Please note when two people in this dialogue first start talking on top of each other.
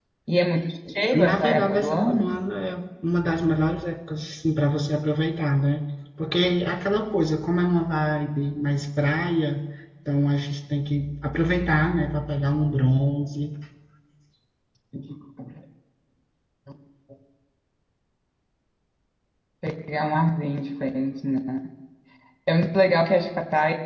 1 s

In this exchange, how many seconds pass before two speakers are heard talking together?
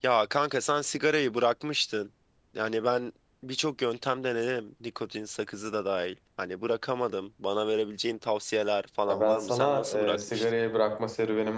9 s

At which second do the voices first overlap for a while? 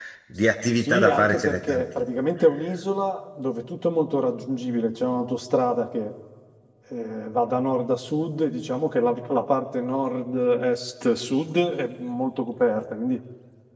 1 s

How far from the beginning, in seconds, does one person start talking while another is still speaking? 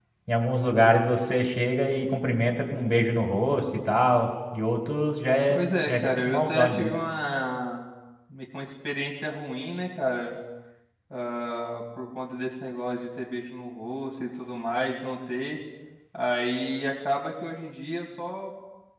5 s

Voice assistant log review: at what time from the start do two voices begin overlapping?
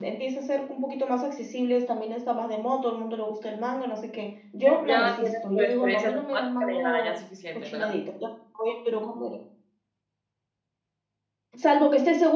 5 s

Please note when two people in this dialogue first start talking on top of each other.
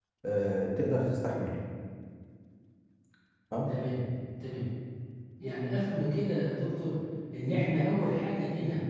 none

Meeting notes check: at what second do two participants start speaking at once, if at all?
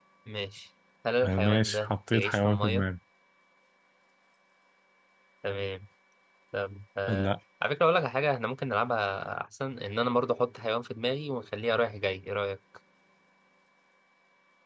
1 s

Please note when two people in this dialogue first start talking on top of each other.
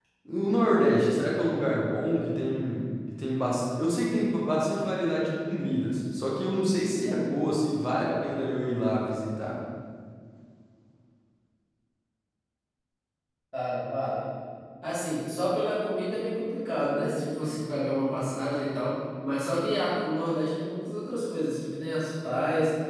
none

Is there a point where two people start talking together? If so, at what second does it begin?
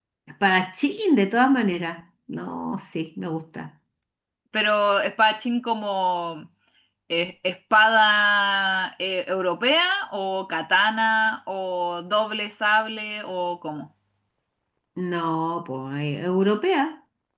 none

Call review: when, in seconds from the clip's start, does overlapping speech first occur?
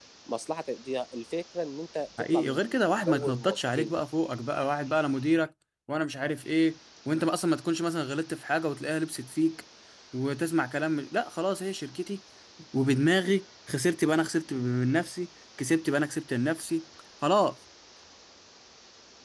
2 s

